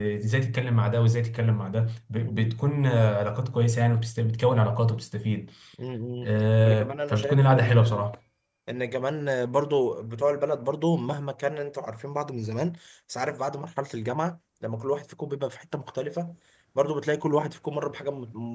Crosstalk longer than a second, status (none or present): present